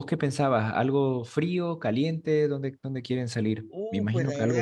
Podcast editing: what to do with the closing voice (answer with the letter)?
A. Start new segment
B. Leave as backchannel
A